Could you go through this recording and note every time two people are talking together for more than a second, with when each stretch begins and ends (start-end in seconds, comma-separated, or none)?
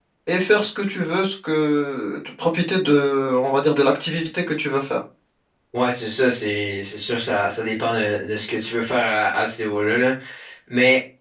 none